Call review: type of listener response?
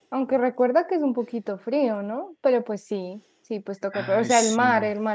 listening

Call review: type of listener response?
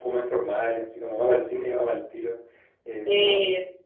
listening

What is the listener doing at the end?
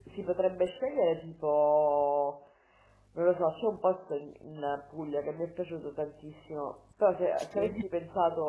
listening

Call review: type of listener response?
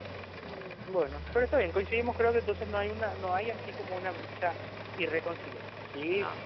listening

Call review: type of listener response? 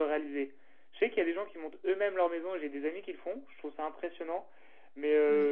listening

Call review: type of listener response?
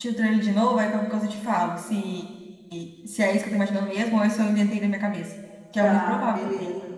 taking over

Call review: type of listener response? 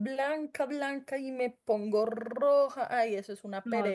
taking over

